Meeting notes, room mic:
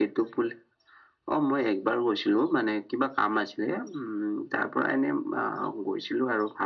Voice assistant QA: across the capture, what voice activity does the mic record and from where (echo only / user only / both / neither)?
echo only